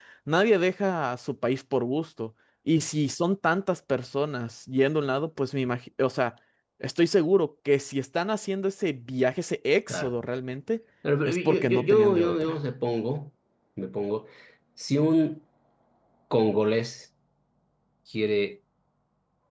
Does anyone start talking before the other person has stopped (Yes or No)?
Yes